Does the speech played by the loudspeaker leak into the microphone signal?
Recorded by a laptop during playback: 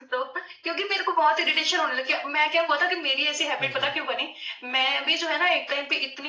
Yes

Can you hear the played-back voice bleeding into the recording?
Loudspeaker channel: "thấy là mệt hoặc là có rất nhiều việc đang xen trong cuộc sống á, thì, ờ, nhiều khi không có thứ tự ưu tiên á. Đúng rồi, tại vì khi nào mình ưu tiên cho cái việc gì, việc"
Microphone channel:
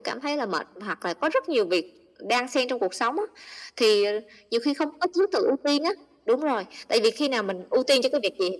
Yes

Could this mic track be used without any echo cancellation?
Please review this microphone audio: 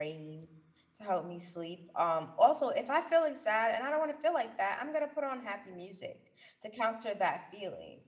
Yes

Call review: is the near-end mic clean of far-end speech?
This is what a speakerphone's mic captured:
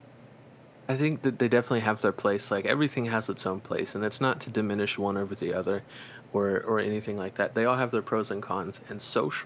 Yes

